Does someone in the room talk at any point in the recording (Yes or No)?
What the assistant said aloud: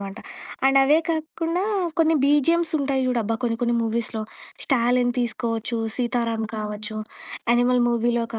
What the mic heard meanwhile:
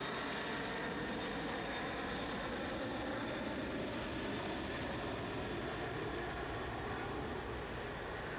No